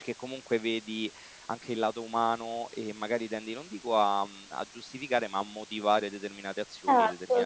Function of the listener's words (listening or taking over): taking over